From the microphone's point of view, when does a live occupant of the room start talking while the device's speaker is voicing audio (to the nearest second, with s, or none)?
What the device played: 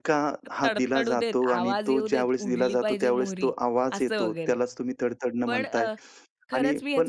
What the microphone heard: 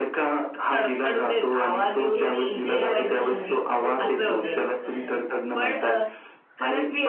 2 s